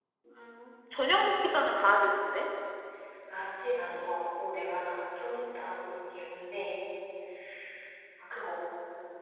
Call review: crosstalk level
none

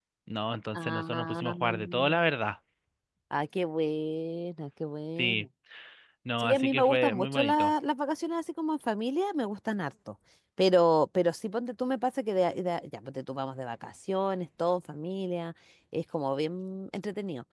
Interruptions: present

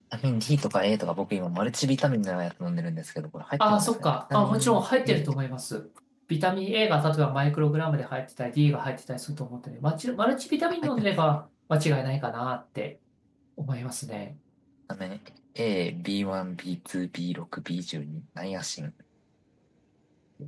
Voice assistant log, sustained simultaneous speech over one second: present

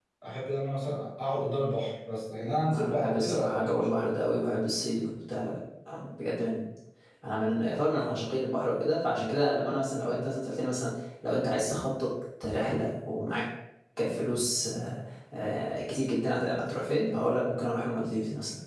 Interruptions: present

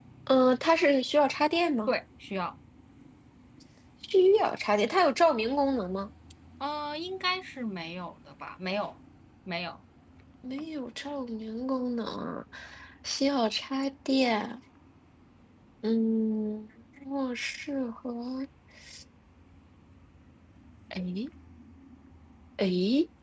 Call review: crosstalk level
none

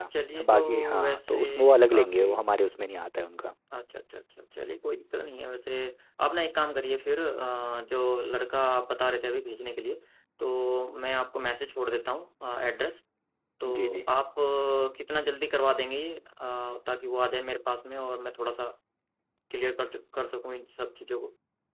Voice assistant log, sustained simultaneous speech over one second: present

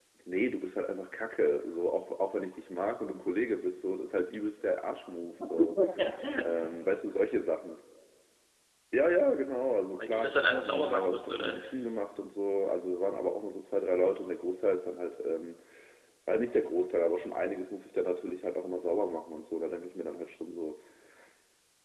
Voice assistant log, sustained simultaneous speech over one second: present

